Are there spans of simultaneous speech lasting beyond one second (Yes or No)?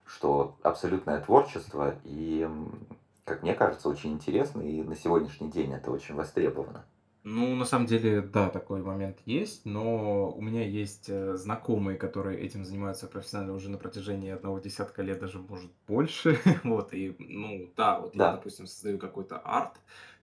No